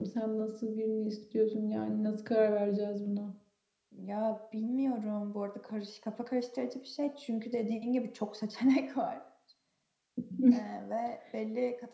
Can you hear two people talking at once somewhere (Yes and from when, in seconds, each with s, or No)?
No